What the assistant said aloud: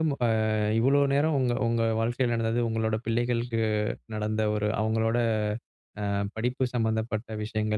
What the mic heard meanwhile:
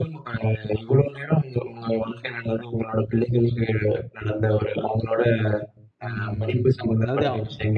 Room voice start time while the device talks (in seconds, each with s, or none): 6.0 s